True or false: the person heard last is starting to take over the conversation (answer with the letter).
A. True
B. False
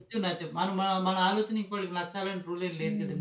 A